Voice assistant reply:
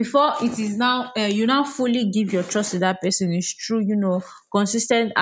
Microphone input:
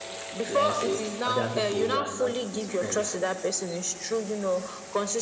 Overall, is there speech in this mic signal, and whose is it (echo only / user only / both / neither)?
both